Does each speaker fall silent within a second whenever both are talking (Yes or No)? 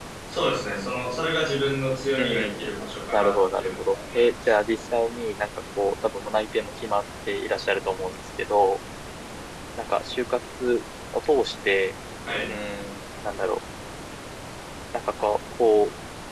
No